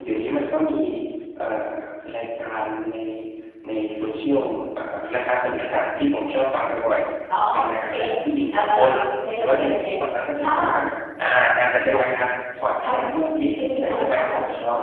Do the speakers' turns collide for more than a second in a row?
Yes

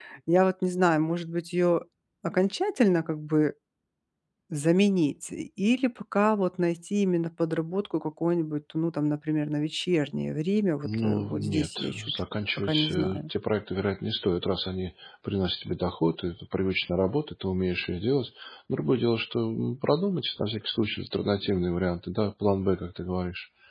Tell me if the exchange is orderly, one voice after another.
No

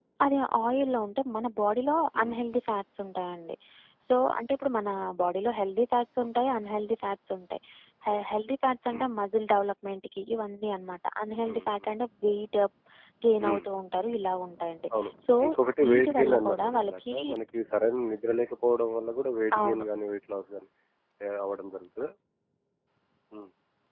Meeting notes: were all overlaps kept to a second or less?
No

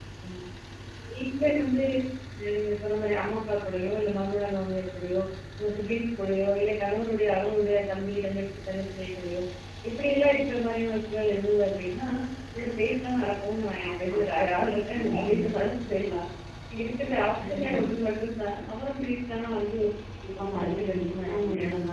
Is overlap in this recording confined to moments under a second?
No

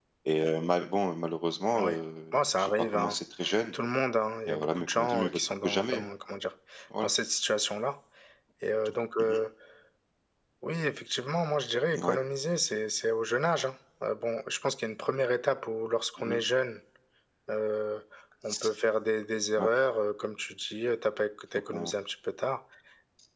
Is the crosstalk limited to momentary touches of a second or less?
No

